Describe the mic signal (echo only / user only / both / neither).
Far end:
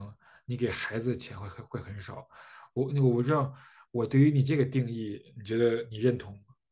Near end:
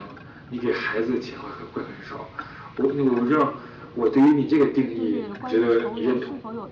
both